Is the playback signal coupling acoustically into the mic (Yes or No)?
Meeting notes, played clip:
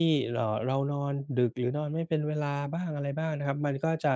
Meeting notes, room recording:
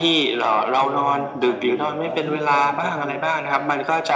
Yes